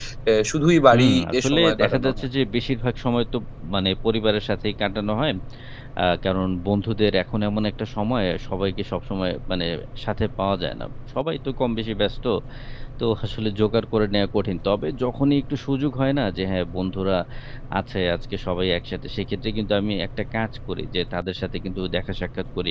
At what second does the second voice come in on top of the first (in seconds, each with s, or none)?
0.9 s